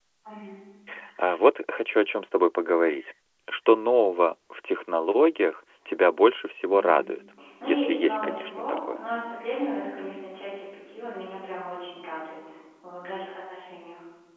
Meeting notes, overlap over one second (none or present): present